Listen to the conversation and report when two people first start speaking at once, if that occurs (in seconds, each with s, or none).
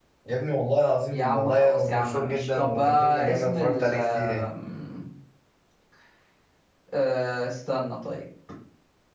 1.1 s